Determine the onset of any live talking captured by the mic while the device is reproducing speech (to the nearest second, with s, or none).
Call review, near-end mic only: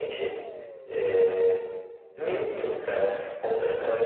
none